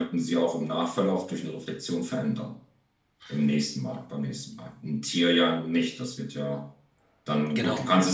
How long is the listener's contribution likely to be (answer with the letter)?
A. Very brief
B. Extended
A